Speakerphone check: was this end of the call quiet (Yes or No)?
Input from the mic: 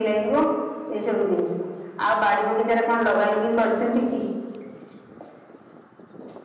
Yes